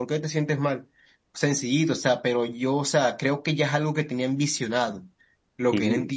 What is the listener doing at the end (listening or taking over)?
listening